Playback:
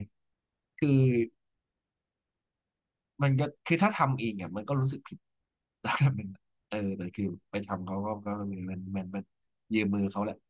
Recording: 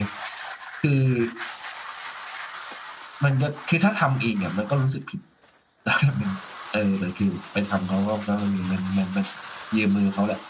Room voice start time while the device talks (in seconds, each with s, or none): none